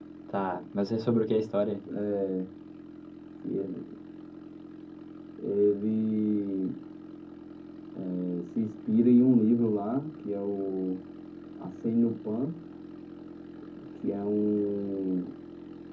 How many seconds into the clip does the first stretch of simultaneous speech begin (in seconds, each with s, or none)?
none